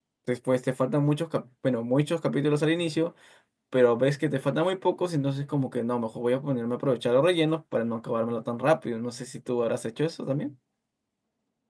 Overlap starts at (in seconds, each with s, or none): none